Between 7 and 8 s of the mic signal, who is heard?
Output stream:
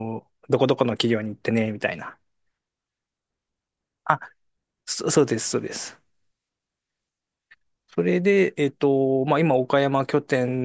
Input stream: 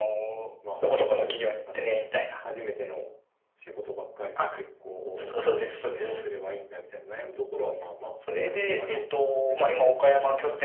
user only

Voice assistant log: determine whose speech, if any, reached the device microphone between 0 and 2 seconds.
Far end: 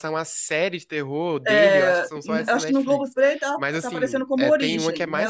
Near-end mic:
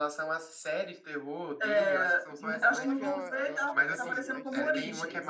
echo only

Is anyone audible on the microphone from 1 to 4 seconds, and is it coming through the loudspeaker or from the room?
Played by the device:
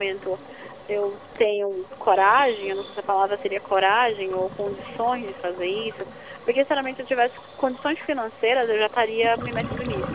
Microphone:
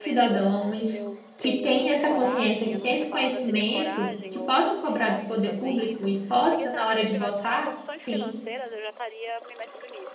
both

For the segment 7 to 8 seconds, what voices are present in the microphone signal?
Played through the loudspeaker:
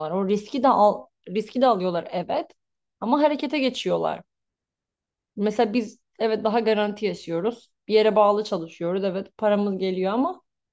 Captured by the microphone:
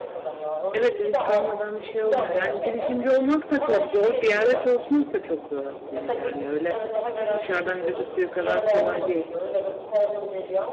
both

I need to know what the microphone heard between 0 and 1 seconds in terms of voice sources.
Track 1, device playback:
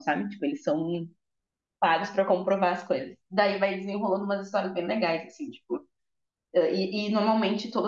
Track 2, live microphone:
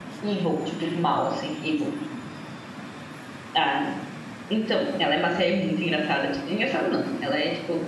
user only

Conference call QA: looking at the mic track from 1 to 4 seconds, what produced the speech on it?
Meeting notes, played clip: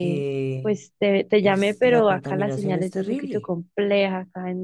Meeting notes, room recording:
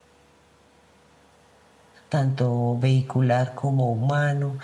user only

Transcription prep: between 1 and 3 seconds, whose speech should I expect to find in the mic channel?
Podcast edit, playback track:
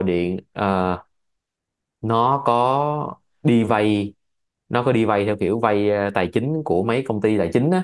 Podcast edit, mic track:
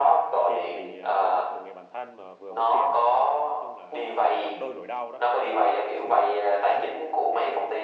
both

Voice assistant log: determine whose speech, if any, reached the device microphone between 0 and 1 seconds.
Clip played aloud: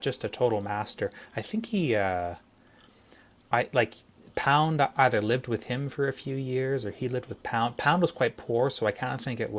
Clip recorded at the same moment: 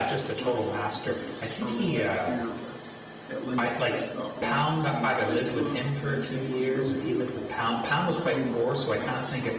both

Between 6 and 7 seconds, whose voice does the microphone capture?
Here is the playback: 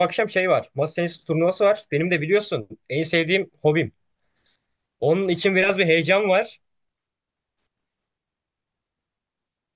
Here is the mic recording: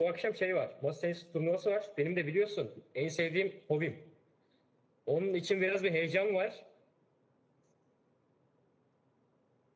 echo only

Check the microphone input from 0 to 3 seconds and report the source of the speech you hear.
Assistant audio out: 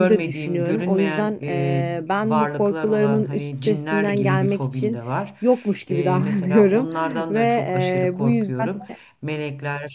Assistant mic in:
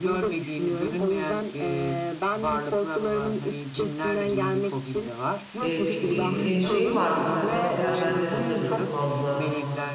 echo only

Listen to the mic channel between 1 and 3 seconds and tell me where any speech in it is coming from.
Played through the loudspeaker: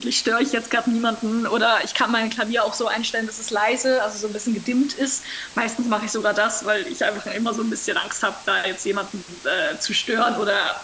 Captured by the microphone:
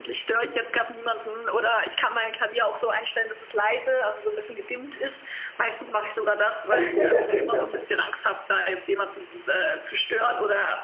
echo only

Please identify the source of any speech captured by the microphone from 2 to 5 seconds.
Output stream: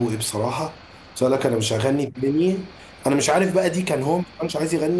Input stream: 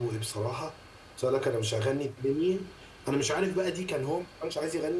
echo only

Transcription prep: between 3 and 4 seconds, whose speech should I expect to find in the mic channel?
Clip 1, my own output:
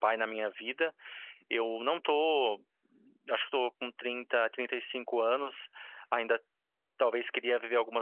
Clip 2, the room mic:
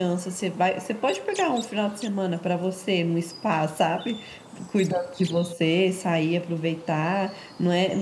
user only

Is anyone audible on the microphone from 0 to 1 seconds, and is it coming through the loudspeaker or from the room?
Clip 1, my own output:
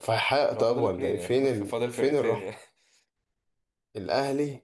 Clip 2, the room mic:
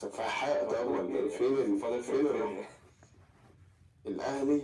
echo only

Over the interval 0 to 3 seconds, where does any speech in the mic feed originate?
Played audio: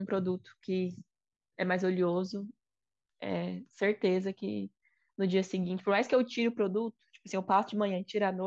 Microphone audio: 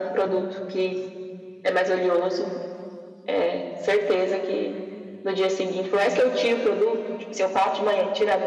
echo only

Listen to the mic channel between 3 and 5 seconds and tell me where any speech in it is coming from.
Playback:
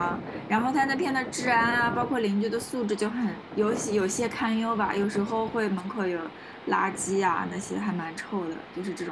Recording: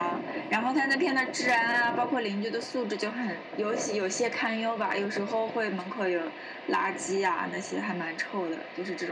echo only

